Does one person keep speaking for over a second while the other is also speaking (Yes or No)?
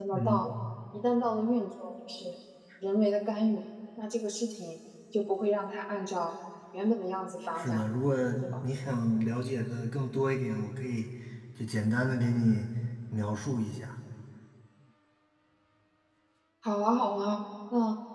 No